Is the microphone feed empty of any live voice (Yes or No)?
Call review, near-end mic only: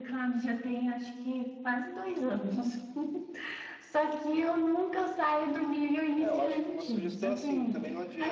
No